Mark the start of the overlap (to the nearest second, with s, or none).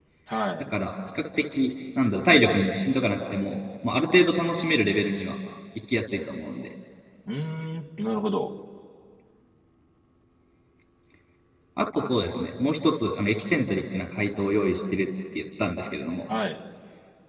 none